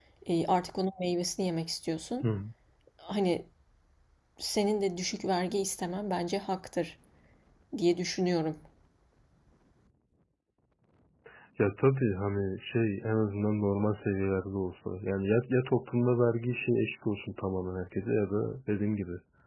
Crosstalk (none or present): none